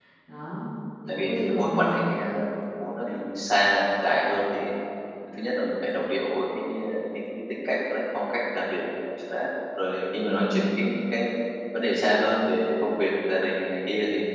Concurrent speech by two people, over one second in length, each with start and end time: 1.1-2.3

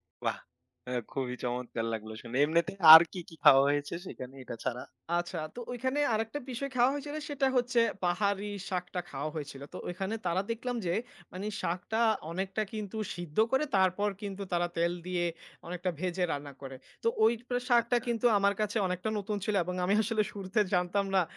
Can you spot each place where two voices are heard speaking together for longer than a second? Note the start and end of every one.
none

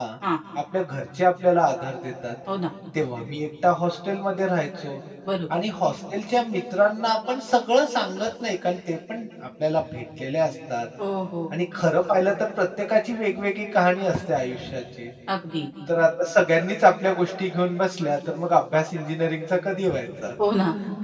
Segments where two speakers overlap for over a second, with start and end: none

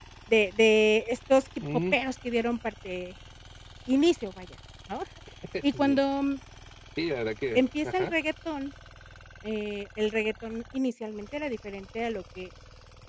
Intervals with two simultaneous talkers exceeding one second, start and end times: none

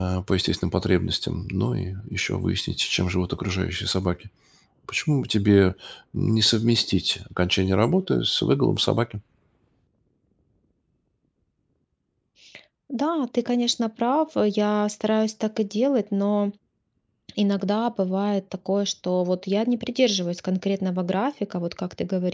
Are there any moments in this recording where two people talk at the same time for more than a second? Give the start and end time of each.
none

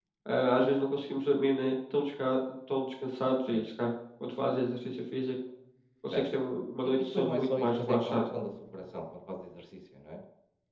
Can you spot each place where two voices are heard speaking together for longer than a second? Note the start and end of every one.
6.8-8.3

